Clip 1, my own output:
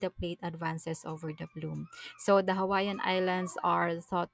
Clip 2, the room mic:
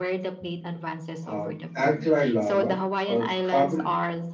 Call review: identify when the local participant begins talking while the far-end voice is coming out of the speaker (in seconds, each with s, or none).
1.2 s